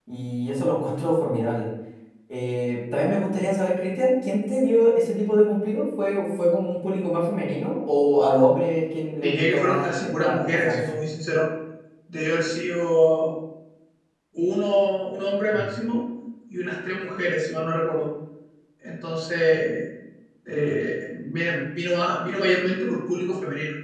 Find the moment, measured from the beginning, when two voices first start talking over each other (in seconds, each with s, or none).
9.2 s